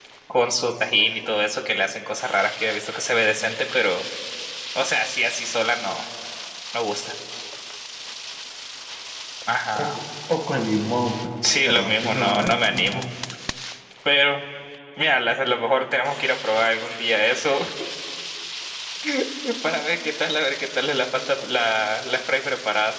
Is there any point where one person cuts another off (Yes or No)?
Yes